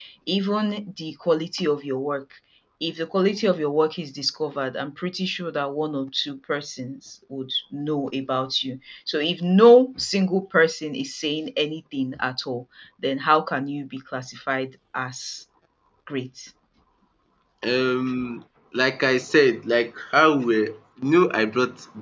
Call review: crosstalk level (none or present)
none